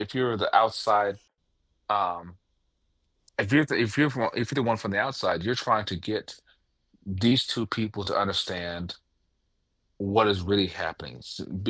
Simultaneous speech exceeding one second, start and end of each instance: none

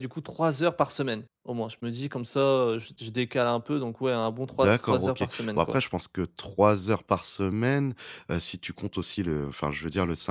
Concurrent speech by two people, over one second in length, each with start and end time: 4.6-5.8

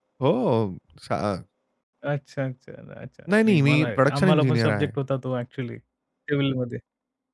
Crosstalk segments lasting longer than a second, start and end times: 3.5-4.9

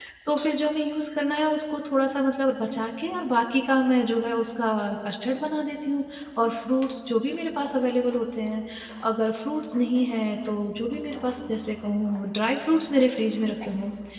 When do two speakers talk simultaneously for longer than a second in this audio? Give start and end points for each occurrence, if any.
none

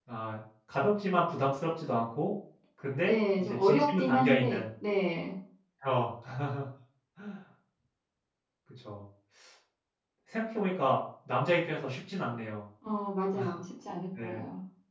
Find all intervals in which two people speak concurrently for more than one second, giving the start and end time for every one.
3.1-4.6

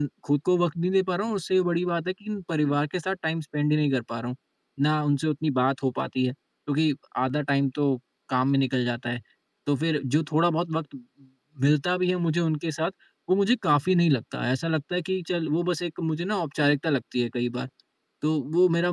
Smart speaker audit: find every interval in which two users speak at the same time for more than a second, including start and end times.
none

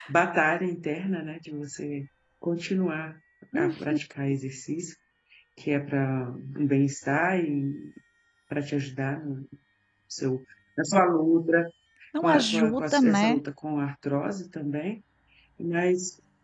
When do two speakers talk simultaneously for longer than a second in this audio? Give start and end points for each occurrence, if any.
12.2-13.4

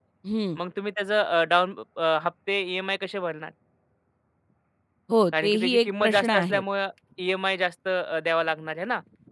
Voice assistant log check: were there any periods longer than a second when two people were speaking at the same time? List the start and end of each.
5.4-6.6

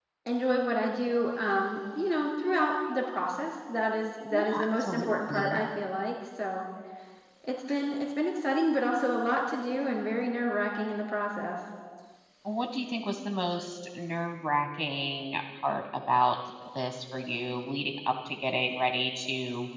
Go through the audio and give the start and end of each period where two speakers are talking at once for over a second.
4.3-5.6

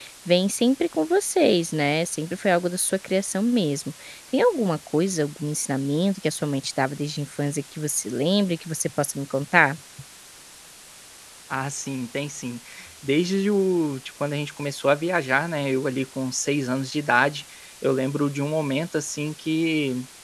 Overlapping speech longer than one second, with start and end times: none

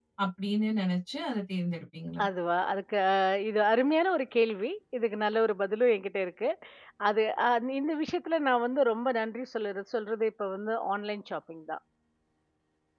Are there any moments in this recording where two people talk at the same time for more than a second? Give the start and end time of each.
none

